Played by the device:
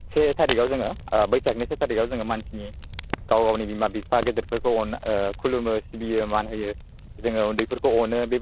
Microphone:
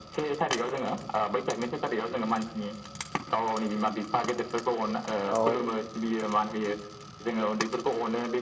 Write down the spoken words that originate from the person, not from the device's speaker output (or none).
औ